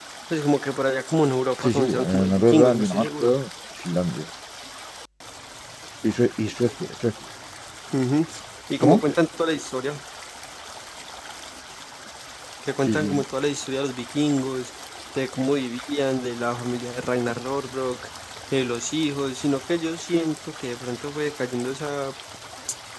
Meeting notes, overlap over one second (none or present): present